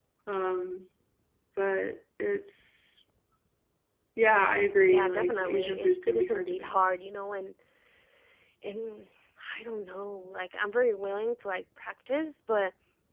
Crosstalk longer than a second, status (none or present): present